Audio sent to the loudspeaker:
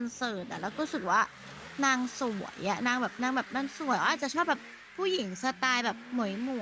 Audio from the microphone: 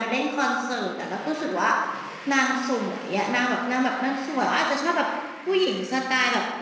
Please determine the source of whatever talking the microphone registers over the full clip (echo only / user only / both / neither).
echo only